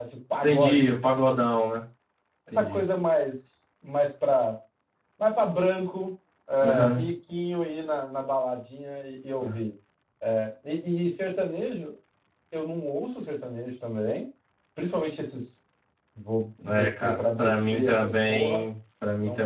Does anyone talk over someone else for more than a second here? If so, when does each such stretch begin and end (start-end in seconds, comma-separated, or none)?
16.7-18.6